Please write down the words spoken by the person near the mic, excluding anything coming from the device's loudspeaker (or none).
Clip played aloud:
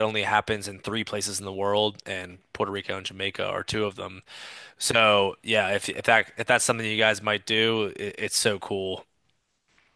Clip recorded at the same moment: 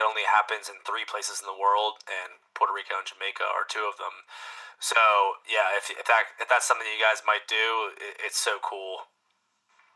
none